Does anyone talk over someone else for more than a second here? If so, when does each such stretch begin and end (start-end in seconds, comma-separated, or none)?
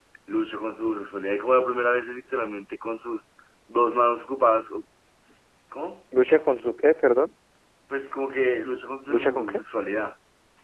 none